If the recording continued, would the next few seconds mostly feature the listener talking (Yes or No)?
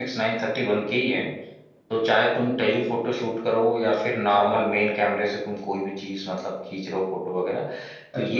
No